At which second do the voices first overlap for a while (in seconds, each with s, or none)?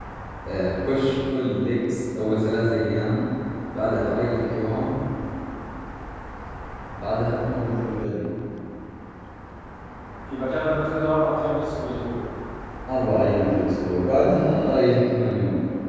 none